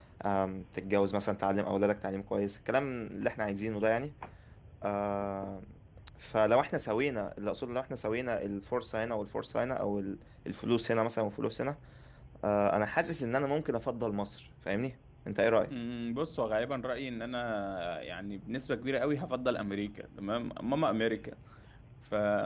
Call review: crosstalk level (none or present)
none